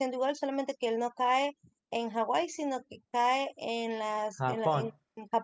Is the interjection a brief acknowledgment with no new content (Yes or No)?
Yes